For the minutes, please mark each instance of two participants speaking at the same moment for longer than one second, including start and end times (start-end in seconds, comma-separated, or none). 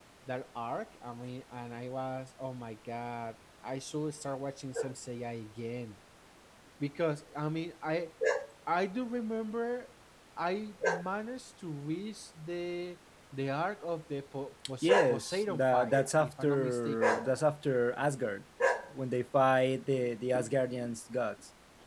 14.8-17.2